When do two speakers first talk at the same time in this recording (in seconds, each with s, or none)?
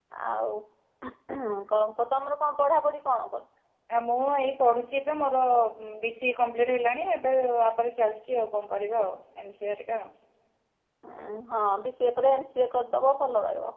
none